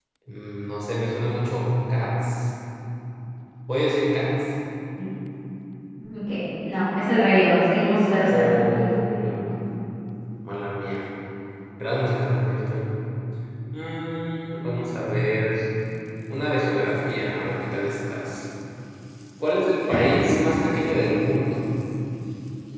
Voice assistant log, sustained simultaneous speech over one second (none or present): none